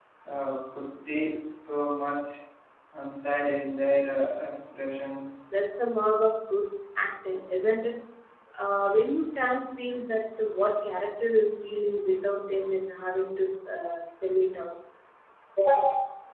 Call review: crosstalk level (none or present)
none